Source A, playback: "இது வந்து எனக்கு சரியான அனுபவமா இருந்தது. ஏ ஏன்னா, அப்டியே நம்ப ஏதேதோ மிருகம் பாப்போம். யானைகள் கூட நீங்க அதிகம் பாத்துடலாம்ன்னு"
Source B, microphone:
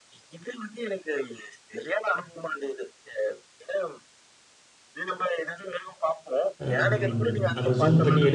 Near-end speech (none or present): present